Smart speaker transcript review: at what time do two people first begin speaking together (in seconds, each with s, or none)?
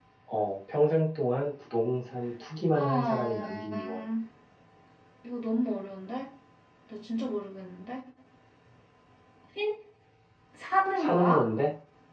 2.7 s